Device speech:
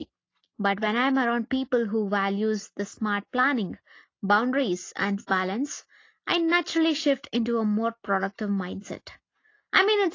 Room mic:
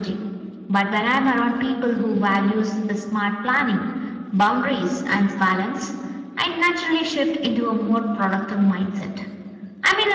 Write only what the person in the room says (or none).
none